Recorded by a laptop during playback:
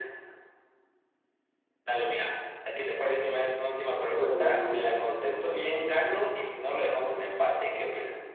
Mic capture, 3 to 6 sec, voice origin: both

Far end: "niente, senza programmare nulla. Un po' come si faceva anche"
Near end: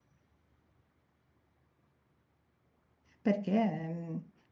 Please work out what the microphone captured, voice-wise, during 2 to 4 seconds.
user only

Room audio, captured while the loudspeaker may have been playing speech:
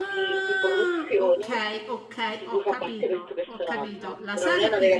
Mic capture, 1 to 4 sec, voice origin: both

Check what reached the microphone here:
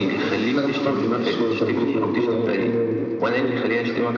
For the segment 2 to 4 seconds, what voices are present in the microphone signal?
echo only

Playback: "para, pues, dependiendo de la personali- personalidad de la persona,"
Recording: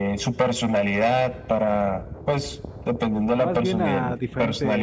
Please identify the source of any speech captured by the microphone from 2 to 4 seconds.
both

